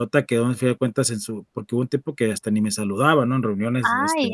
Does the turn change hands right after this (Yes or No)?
Yes